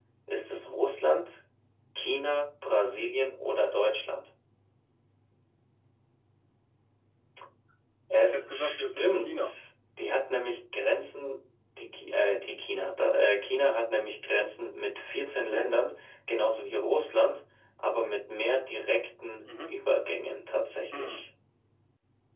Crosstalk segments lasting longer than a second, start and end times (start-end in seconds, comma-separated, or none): 8.2-9.5